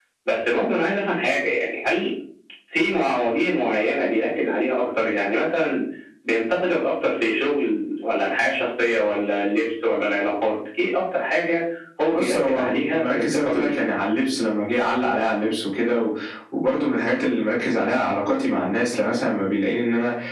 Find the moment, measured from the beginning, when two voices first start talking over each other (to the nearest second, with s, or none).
12 s